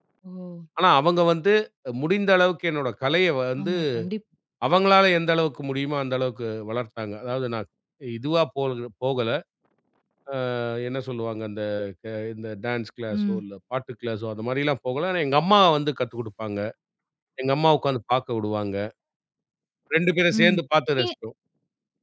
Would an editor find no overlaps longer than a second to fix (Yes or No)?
Yes